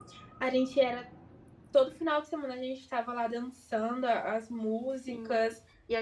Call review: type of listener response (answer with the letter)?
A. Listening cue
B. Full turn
B